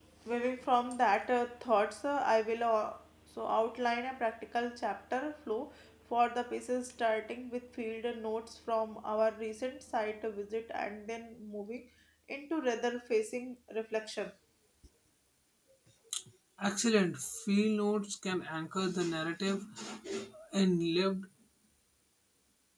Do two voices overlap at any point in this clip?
No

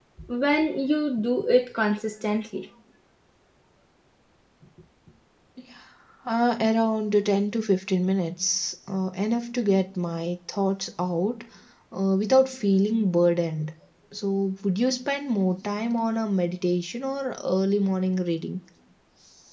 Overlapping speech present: No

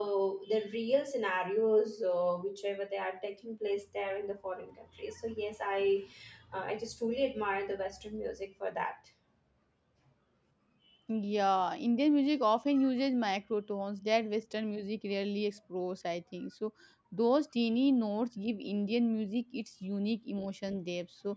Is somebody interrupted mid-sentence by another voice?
No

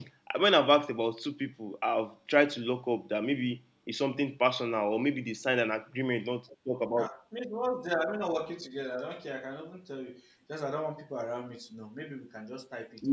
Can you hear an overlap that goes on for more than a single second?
No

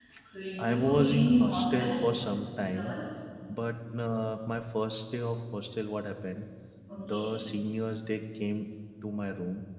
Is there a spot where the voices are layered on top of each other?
Yes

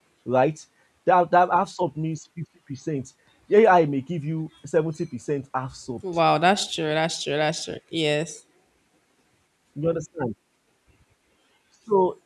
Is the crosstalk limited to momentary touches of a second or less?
Yes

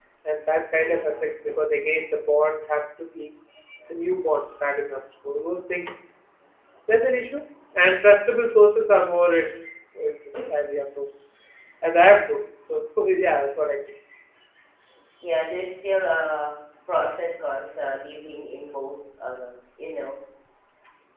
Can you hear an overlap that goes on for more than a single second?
No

